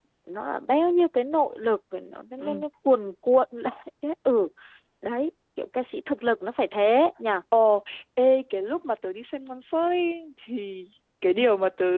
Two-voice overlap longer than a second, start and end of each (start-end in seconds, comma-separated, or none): none